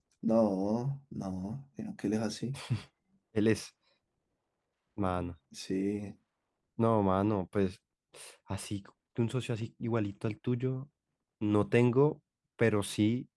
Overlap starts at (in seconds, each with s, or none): none